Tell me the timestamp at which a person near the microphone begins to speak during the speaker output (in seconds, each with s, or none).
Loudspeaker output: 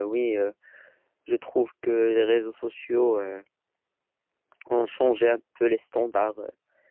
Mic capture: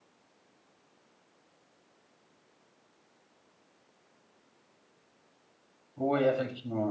6.0 s